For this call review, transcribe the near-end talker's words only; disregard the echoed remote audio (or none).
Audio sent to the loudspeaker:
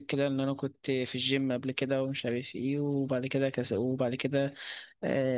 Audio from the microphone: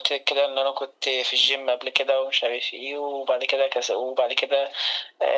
none